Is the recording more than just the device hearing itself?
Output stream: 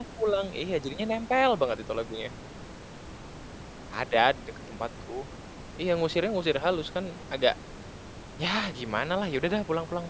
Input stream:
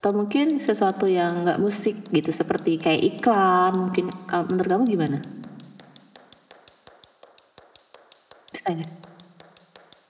Yes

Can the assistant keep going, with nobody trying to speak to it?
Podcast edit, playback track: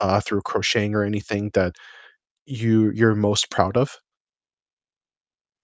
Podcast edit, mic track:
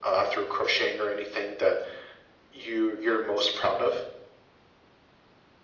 Yes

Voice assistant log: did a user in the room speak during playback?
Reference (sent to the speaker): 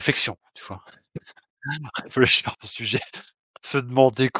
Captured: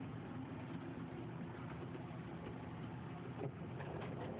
No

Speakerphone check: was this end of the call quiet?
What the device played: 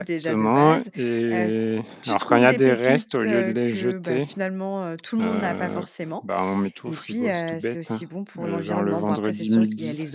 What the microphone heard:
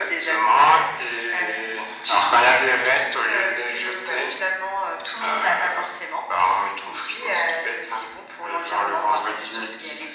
Yes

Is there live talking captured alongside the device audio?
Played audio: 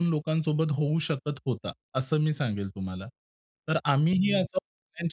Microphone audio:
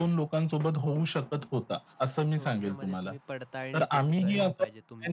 Yes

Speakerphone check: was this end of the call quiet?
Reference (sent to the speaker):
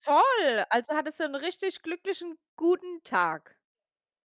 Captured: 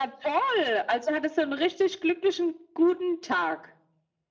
Yes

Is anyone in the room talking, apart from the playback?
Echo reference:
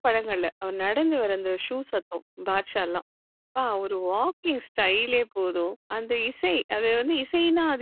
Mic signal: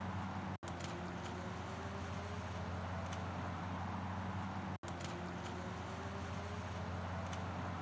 No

